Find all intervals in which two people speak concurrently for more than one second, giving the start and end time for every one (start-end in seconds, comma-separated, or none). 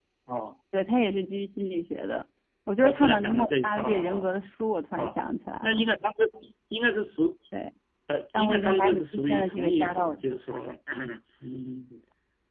2.8-4.4, 8.3-10.2